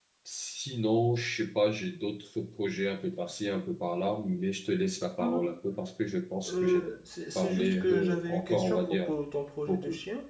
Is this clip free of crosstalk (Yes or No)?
No